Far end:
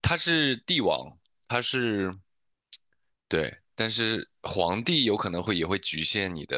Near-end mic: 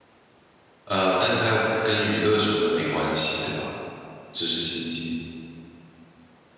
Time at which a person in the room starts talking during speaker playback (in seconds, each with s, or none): 0.8 s